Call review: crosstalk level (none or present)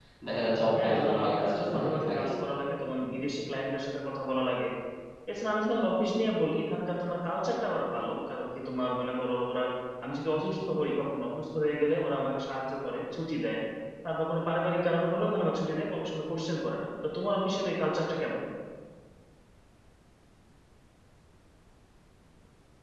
present